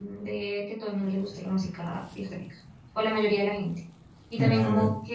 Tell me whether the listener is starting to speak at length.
No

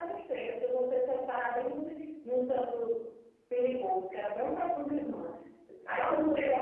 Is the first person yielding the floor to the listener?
Yes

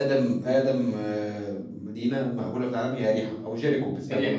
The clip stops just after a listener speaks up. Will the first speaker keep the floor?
No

